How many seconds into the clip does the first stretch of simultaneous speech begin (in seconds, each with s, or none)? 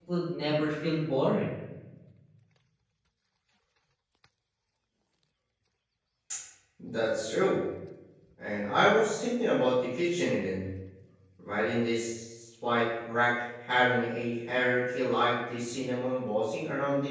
none